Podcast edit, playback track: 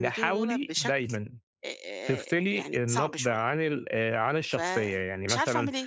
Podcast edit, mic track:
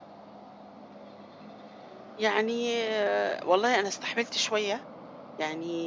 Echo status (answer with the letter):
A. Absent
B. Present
A